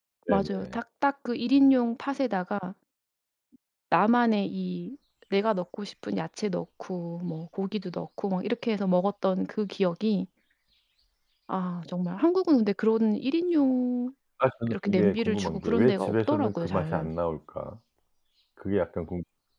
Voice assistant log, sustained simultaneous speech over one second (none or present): present